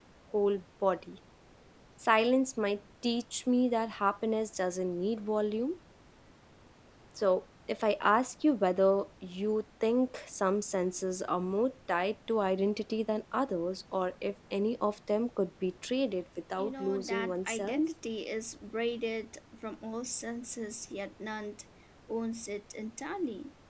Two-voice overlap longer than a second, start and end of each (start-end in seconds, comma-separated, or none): 16.6-17.8